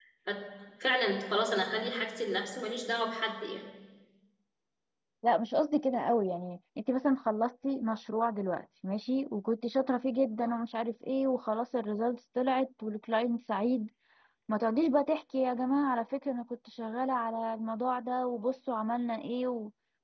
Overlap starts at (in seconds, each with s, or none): none